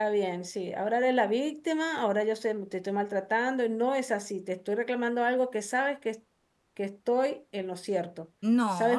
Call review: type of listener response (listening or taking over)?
taking over